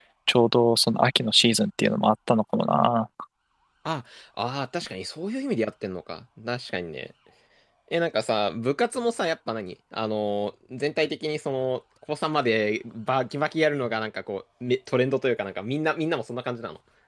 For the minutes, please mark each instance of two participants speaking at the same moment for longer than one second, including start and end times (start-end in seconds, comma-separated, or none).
none